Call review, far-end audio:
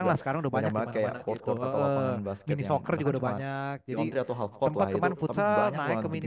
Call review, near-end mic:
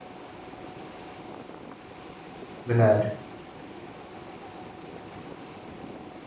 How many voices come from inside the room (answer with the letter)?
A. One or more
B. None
A